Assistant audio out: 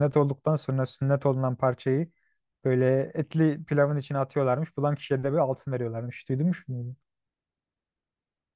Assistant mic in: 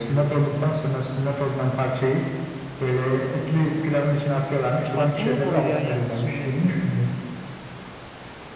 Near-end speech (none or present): present